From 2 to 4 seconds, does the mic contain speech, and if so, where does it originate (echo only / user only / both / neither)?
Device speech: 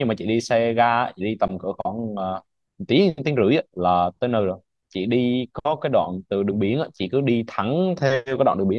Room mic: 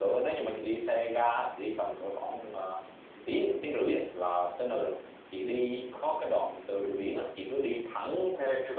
echo only